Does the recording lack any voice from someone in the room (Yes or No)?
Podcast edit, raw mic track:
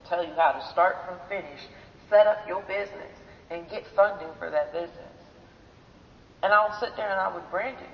Yes